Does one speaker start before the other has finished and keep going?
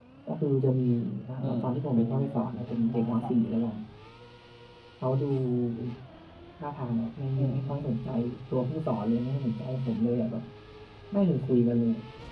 Yes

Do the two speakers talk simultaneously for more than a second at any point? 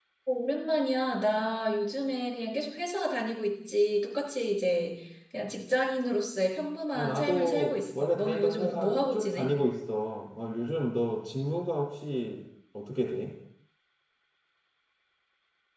Yes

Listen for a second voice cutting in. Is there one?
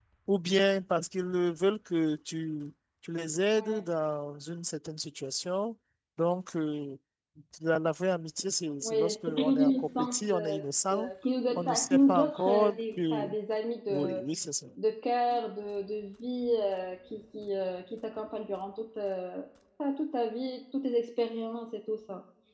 Yes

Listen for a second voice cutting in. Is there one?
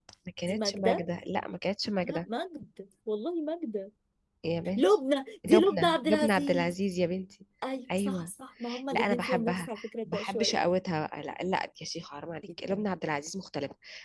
Yes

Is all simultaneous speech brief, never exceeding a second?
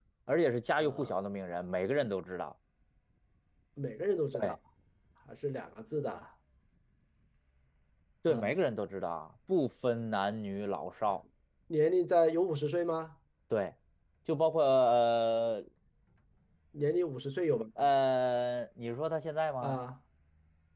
Yes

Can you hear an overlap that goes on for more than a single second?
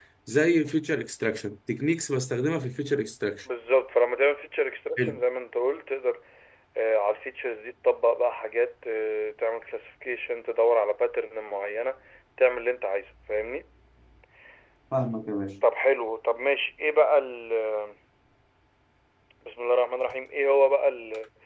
No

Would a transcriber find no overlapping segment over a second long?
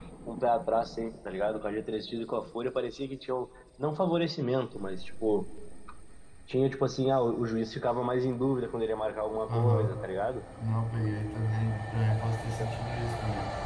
Yes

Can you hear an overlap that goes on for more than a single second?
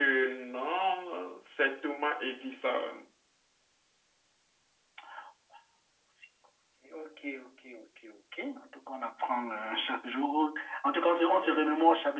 No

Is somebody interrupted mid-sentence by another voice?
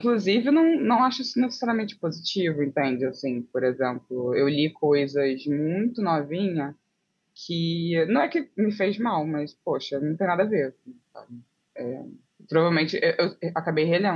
No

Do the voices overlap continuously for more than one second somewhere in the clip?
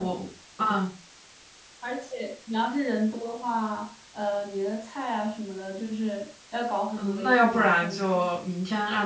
Yes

